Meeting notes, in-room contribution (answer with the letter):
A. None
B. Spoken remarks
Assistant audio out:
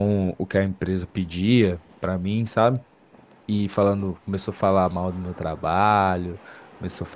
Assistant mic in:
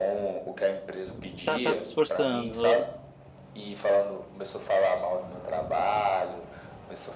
B